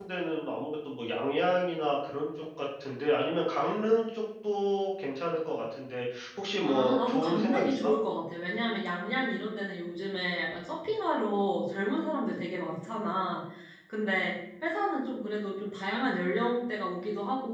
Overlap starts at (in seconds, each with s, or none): 6.7 s